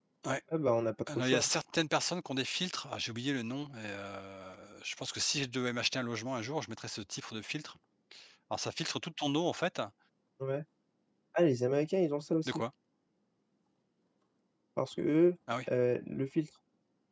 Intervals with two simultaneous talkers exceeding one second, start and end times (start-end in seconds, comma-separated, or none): none